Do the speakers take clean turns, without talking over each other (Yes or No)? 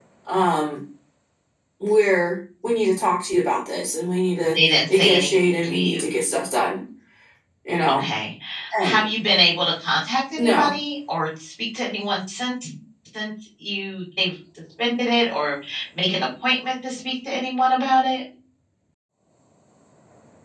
No